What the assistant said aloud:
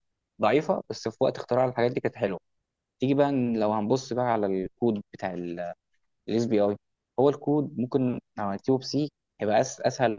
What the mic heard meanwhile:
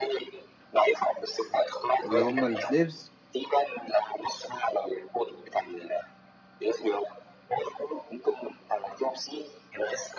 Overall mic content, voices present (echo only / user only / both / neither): both